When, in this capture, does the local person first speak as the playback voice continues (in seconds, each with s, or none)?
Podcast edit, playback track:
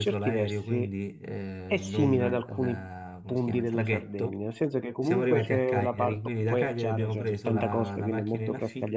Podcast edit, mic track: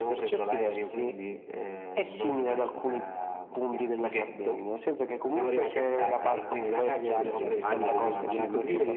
6.0 s